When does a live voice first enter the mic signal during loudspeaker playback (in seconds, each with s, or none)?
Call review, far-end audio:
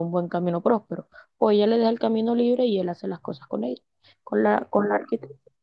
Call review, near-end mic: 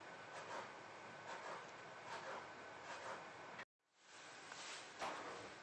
none